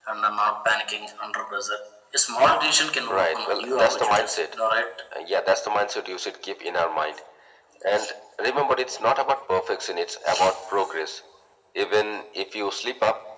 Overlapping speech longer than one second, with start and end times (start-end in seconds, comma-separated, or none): 3.1-4.5